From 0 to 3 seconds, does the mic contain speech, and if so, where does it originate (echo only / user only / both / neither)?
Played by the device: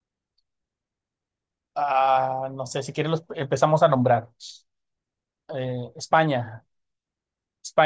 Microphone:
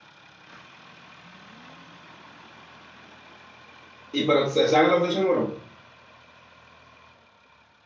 neither